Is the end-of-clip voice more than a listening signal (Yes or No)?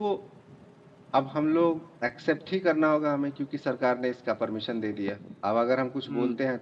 No